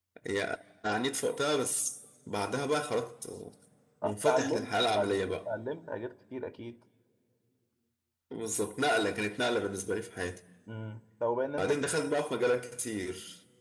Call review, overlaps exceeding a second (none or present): present